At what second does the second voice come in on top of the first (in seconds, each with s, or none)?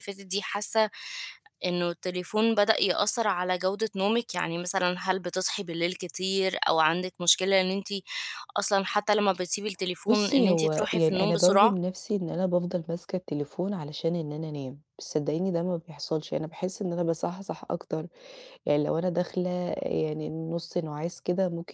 10.1 s